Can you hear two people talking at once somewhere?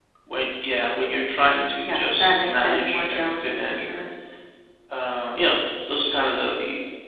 Yes, from 1.9 s

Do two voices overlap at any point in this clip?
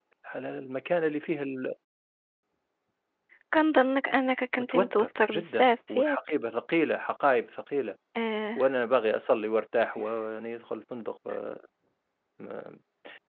Yes, from 4.6 s

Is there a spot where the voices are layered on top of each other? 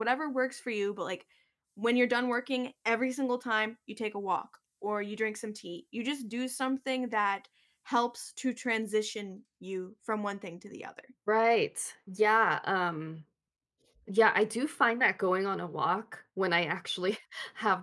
No

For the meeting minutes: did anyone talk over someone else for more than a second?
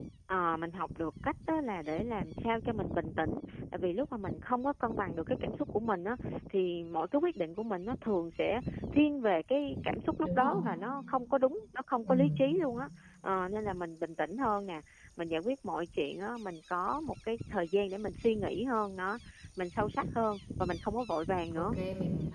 No

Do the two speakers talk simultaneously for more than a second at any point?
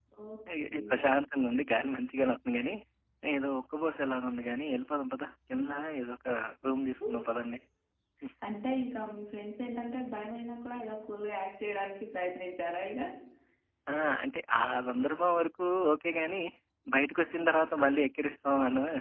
No

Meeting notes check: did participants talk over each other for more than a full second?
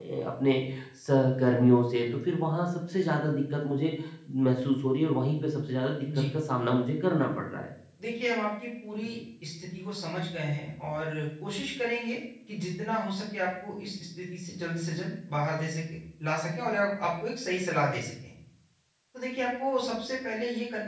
No

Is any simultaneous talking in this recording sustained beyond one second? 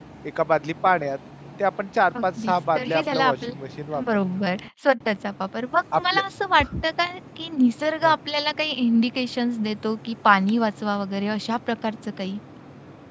Yes, from 2.2 s

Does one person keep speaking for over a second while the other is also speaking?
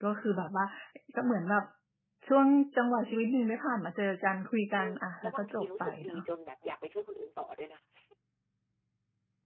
Yes, from 4.8 s

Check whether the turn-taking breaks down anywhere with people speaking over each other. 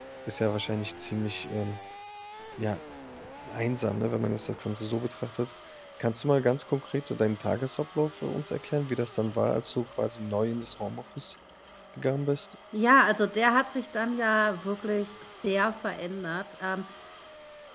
No

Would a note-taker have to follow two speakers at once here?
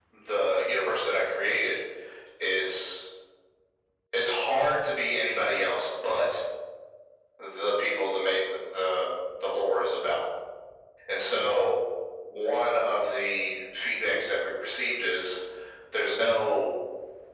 No

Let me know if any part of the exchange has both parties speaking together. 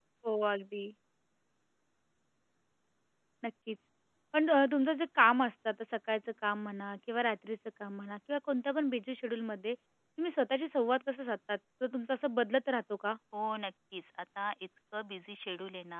No

